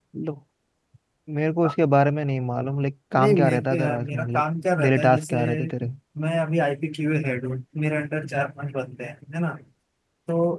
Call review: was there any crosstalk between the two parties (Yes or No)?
Yes